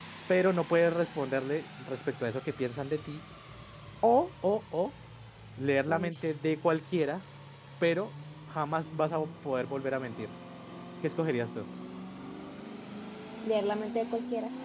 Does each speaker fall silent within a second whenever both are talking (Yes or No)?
Yes